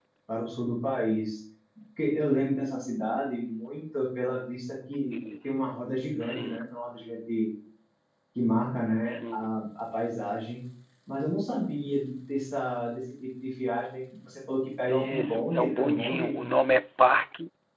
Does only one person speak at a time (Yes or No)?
No